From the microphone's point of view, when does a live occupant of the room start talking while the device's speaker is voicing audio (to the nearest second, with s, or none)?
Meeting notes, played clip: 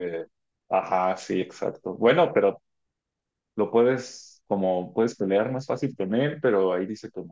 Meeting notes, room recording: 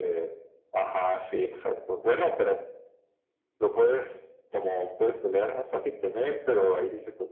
none